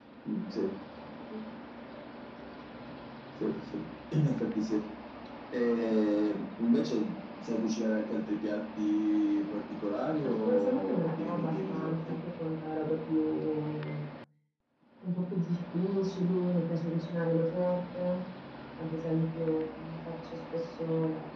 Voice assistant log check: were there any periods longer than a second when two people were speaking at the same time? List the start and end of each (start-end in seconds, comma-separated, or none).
10.2-11.9